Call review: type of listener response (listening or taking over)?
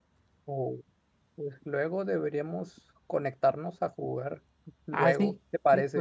taking over